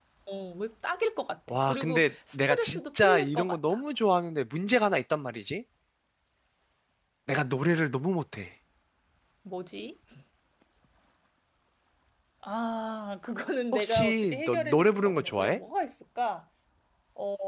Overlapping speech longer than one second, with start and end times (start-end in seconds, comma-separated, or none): 1.5-3.8, 13.7-15.6